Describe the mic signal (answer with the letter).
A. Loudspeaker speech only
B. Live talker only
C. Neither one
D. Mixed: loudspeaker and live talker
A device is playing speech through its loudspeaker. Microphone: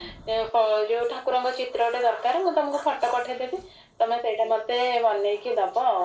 A